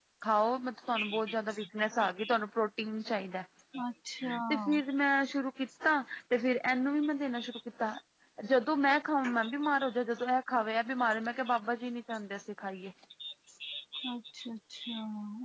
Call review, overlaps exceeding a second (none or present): none